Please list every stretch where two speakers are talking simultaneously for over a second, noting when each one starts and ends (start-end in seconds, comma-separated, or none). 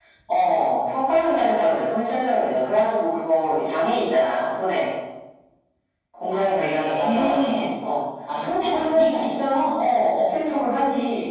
6.3-7.7, 8.6-9.8